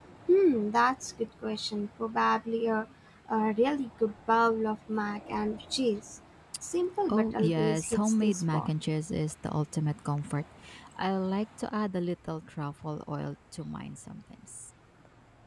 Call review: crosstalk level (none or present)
present